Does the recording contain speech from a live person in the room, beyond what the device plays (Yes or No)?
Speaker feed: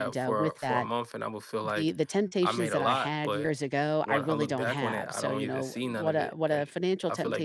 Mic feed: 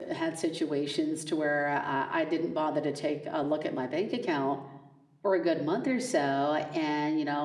Yes